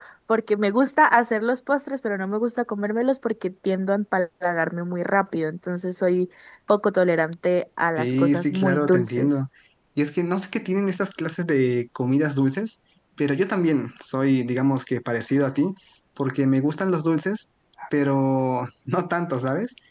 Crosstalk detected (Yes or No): Yes